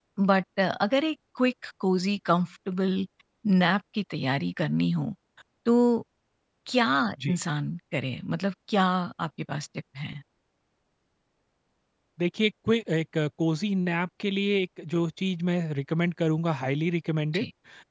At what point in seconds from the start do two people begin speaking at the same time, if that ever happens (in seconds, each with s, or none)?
none